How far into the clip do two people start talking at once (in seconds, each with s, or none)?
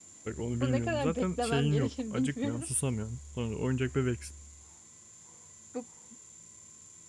0.6 s